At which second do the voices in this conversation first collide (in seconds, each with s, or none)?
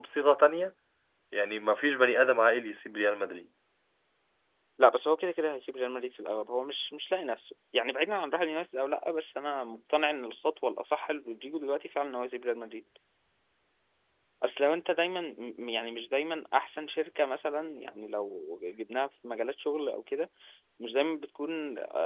none